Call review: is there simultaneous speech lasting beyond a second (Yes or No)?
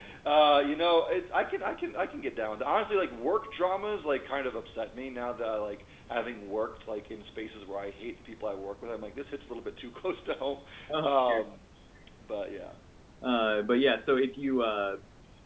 No